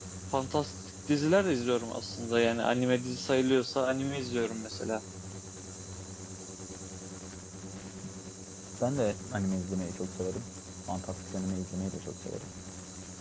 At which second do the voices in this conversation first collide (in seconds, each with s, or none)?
none